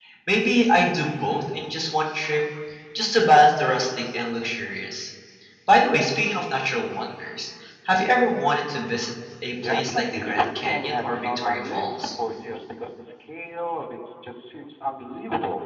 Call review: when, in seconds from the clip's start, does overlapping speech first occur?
9.5 s

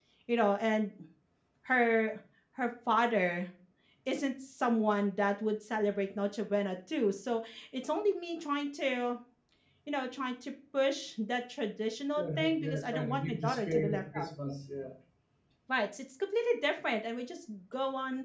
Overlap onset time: 12.2 s

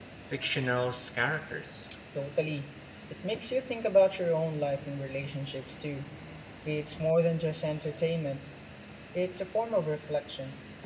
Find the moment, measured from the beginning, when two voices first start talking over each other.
none

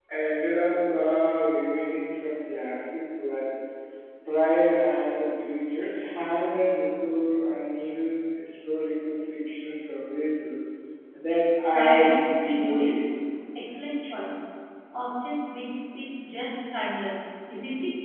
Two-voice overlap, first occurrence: 11.7 s

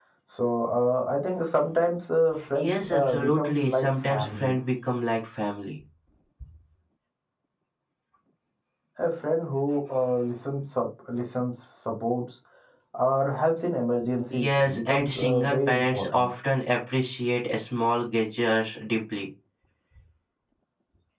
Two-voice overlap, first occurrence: 2.5 s

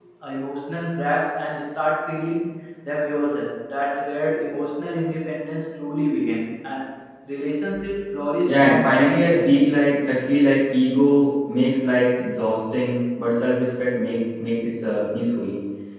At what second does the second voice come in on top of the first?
8.5 s

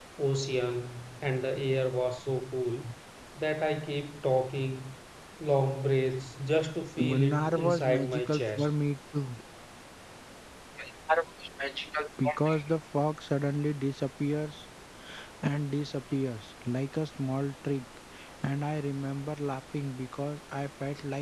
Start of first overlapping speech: 7.0 s

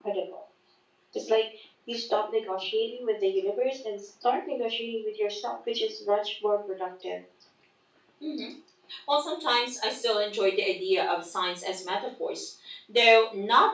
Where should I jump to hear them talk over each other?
none

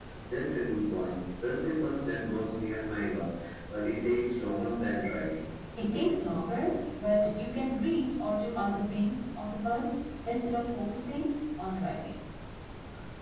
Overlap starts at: none

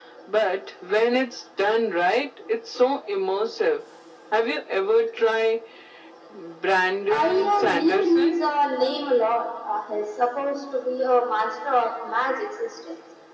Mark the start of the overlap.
7.1 s

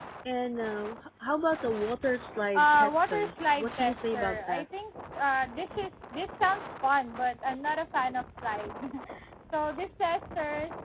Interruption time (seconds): 2.5 s

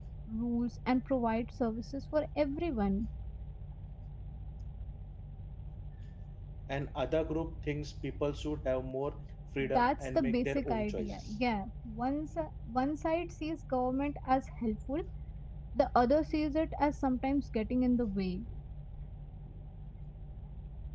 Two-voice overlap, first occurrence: 9.6 s

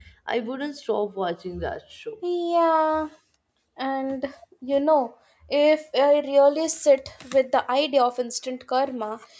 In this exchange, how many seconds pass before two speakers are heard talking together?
none

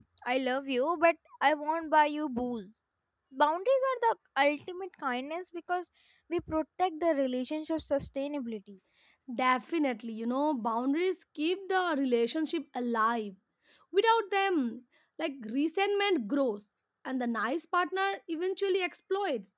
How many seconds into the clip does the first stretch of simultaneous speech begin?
none

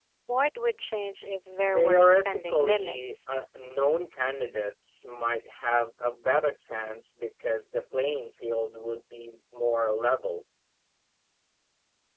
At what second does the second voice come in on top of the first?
1.7 s

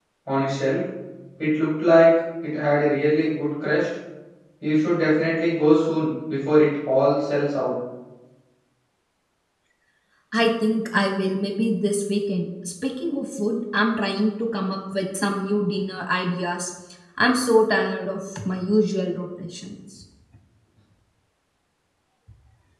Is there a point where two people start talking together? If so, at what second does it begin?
none

